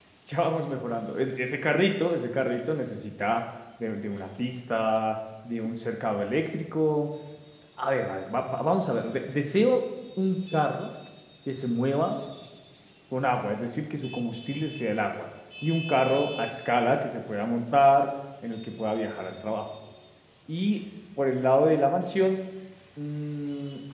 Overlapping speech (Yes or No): No